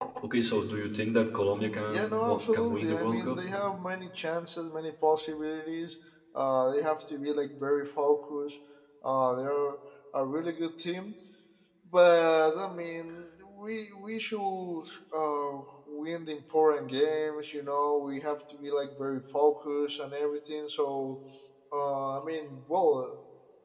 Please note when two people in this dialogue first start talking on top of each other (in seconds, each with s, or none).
1.9 s